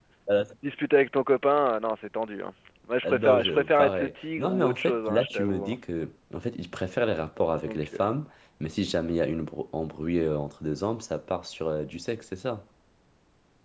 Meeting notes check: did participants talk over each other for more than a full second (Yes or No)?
Yes